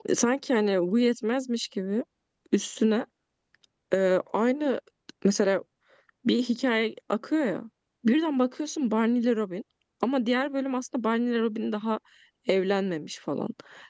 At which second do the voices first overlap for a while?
none

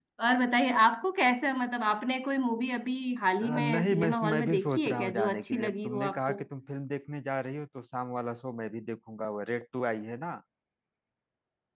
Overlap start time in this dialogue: 3.4 s

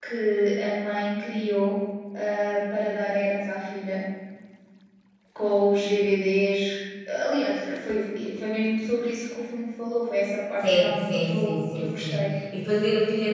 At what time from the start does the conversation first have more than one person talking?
10.6 s

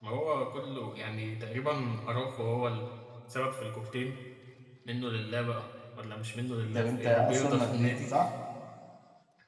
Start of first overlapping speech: 6.6 s

